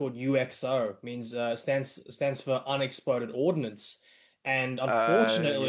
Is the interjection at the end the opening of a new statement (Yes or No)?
No